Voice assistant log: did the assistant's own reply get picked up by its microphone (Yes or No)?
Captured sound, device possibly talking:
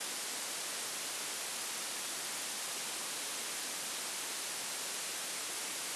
No